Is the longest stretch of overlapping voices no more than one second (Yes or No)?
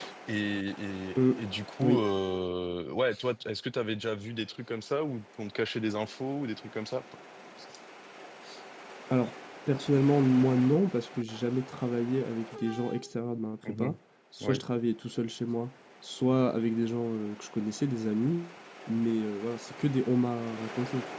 Yes